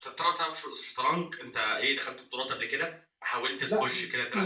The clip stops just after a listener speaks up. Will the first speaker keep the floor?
No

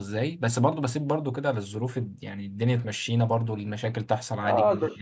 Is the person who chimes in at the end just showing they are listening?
No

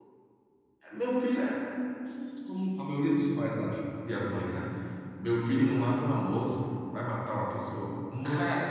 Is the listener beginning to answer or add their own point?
Yes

